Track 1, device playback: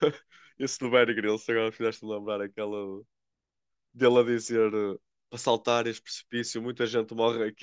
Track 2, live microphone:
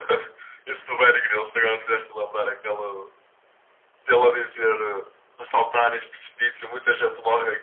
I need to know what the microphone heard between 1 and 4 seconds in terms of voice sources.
echo only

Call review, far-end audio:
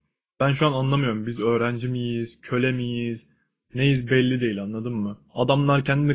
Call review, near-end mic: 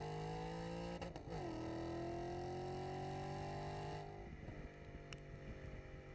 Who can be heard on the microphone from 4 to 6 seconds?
neither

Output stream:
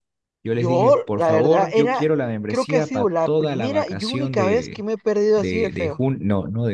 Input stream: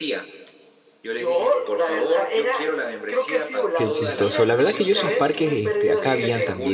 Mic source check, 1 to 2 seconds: echo only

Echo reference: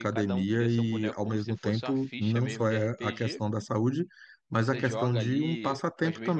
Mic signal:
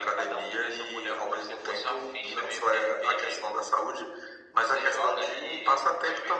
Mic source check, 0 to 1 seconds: echo only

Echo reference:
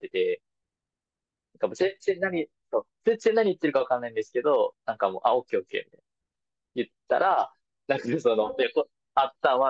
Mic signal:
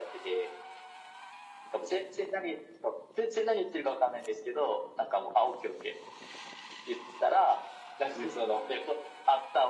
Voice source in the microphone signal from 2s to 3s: echo only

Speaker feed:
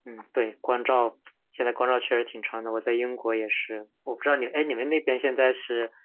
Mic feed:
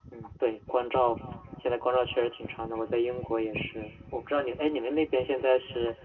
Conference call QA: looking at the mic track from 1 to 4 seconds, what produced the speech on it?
echo only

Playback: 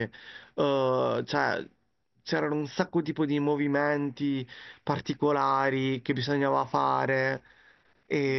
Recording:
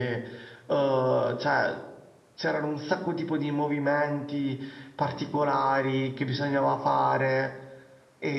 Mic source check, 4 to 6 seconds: echo only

